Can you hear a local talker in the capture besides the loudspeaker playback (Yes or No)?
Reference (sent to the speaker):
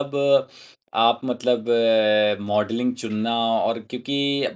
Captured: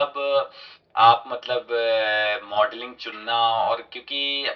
No